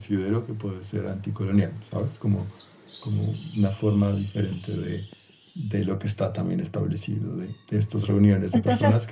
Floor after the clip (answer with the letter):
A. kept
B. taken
A